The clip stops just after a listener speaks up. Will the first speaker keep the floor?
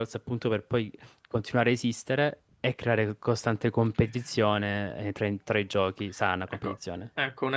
No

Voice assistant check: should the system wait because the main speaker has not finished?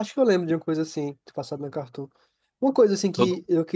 Yes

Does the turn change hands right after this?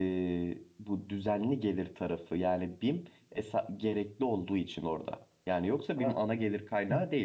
No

